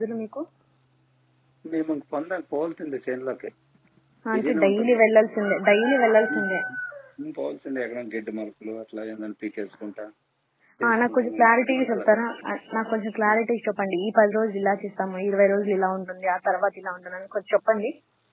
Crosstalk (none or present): present